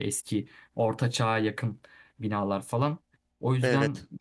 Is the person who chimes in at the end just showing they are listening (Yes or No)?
Yes